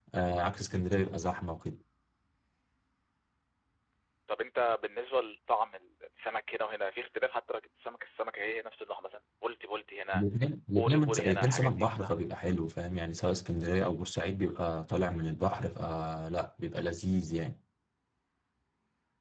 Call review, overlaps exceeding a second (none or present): present